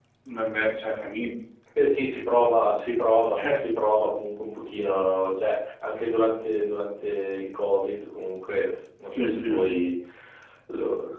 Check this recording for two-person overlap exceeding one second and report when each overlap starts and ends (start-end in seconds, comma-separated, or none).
none